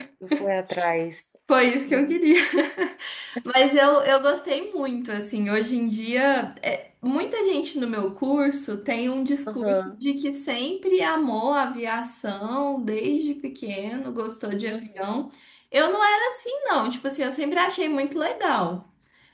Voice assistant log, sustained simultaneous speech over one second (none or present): none